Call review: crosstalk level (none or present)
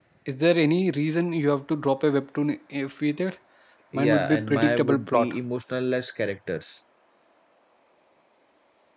present